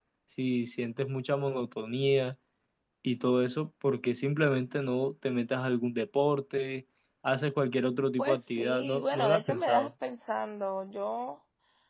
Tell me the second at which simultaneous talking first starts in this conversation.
8 s

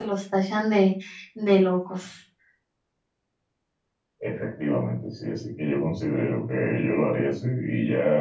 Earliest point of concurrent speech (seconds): none

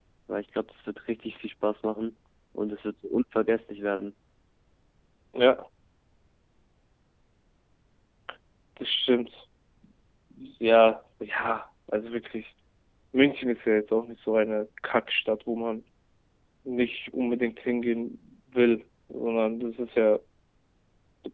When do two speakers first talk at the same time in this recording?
none

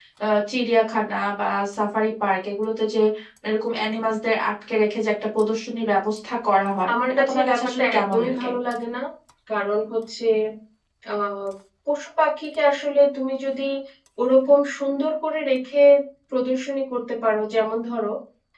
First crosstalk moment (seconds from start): 7 s

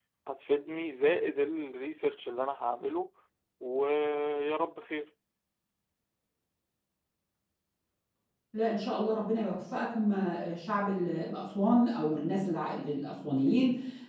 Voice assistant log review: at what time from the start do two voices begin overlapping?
none

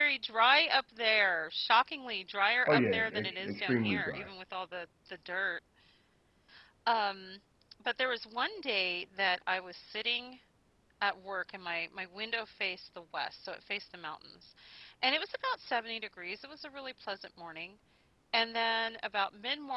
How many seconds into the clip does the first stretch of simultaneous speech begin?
3 s

